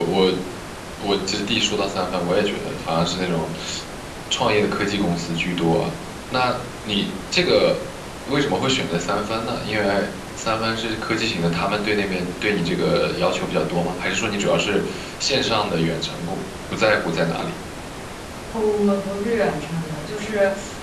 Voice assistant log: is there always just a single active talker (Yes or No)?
Yes